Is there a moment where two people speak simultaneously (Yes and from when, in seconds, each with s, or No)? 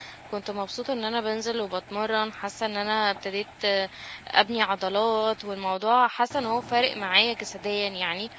No